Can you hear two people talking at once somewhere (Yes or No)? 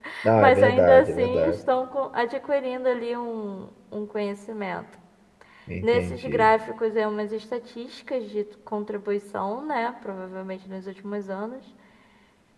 Yes